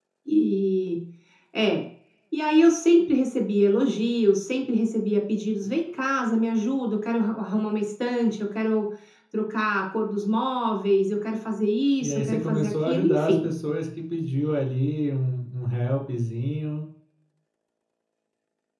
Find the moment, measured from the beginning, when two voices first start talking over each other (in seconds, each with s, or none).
12.0 s